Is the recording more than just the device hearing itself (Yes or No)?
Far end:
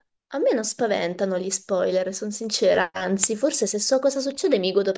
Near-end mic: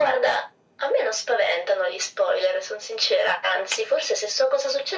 No